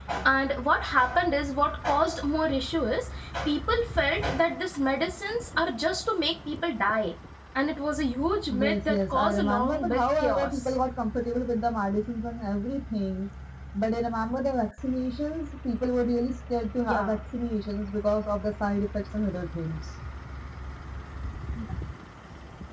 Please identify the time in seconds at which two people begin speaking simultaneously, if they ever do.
8.5 s

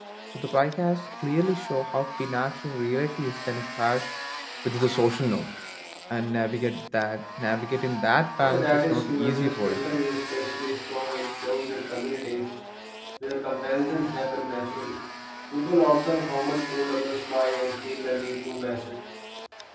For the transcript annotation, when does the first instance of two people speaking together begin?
8.4 s

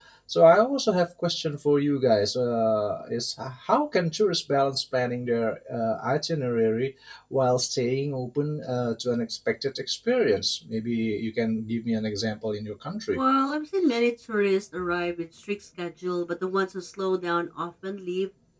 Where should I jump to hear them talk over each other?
none

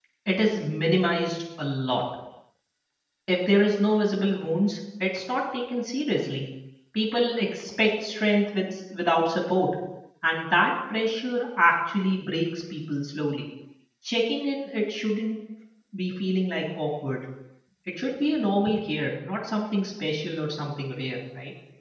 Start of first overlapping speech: none

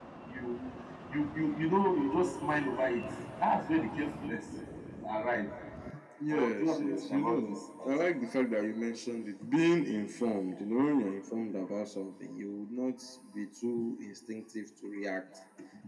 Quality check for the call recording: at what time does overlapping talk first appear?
6.3 s

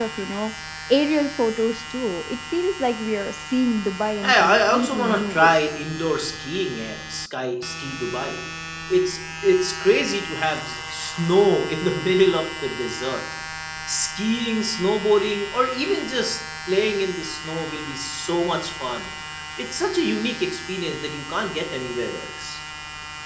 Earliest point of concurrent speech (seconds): 4.2 s

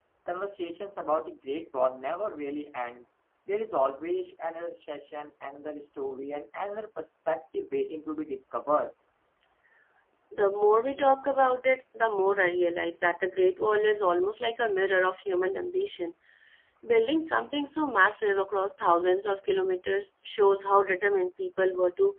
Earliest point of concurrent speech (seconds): none

